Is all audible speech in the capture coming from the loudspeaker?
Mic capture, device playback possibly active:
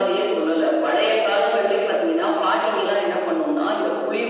Yes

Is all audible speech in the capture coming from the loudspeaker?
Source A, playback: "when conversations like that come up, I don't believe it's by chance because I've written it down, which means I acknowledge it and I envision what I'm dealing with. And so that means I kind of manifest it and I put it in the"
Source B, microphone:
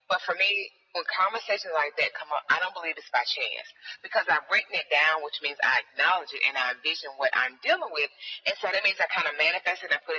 Yes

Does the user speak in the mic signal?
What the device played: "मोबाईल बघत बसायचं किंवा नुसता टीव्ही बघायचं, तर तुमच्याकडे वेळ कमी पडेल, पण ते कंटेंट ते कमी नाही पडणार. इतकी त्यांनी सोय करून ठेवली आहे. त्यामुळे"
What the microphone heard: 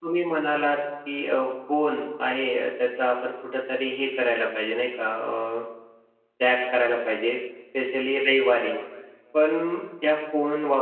Yes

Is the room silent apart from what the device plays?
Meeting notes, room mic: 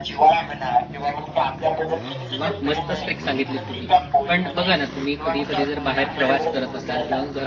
No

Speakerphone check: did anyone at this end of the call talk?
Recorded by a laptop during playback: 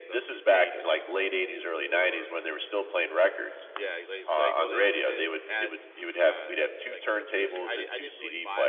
Yes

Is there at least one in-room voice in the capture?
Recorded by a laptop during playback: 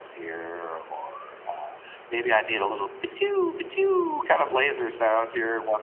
No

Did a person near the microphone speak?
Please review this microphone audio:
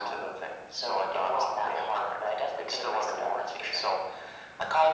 No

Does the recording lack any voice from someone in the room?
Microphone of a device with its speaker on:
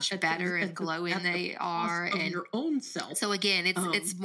Yes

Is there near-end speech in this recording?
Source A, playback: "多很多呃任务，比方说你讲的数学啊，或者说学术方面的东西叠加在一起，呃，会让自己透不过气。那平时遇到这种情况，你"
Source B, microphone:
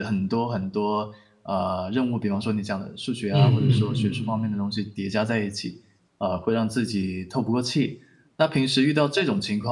Yes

